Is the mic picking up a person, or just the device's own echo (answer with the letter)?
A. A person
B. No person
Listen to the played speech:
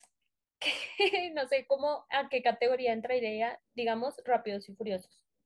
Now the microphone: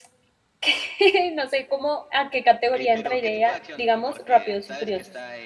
A